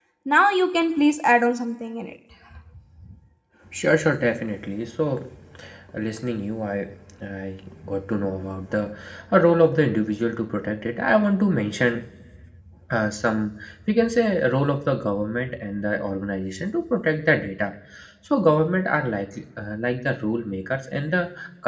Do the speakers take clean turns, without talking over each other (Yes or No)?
Yes